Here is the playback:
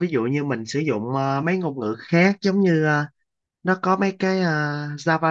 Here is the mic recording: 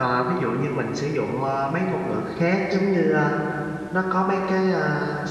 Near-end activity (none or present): none